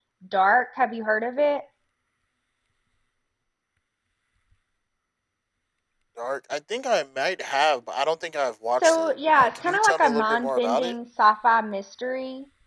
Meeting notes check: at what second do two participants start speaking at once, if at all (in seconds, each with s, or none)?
8.7 s